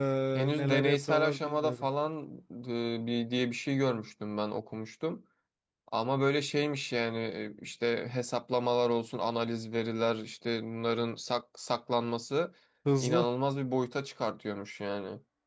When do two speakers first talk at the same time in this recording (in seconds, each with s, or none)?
0.6 s